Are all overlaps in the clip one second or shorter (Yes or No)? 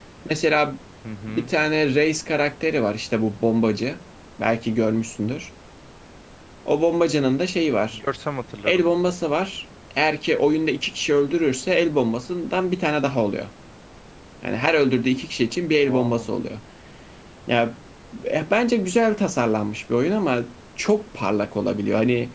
Yes